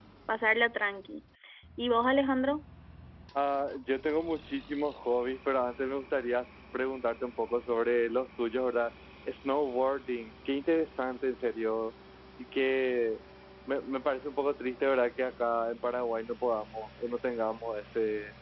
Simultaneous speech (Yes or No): No